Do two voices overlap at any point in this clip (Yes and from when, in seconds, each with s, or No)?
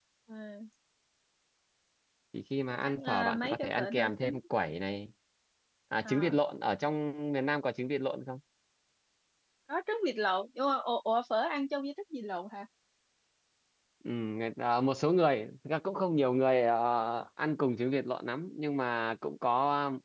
Yes, from 2.8 s